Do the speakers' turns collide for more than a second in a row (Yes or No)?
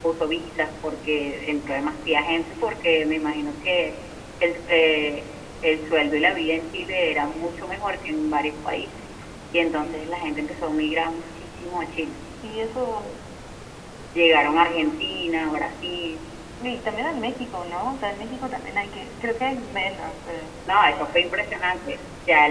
No